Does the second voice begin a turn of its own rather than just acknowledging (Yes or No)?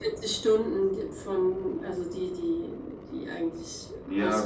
Yes